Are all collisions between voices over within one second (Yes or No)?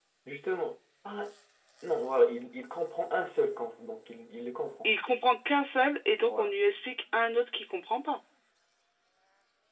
Yes